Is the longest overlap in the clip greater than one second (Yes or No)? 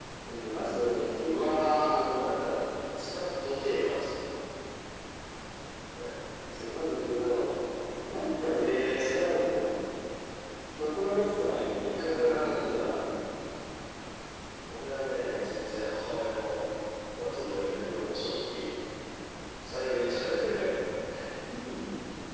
Yes